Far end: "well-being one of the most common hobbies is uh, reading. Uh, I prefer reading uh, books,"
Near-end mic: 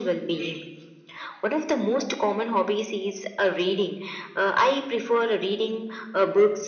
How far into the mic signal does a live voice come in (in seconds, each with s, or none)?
none